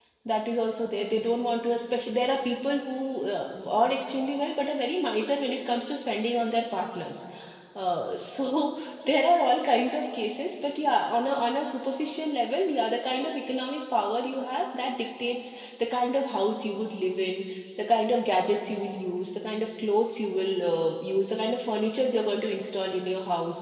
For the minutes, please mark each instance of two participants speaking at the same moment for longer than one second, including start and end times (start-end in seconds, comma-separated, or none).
none